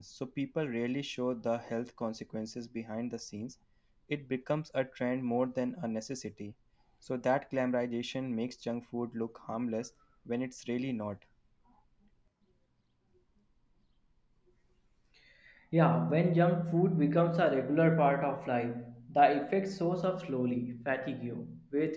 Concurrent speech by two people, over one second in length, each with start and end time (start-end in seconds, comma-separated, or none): none